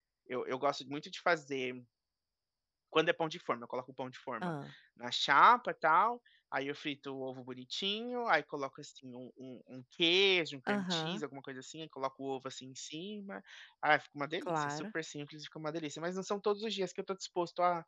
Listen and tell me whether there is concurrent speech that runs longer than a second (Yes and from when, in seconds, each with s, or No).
No